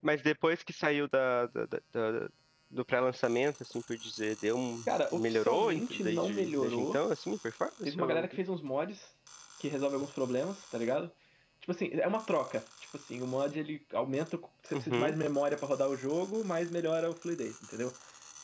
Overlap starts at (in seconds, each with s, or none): 5.1 s